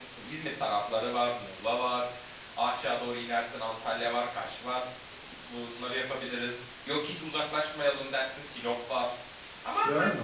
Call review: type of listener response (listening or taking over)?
taking over